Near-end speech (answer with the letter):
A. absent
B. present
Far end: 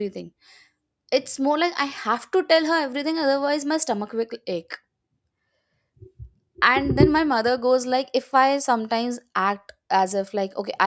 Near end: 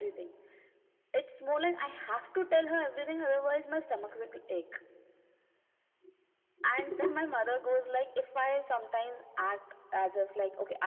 A